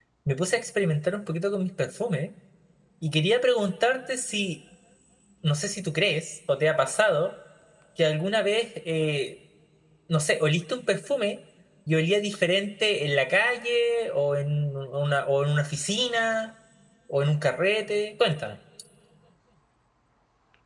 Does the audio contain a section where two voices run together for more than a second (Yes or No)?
No